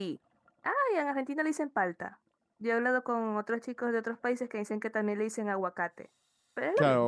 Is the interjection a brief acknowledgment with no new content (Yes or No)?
No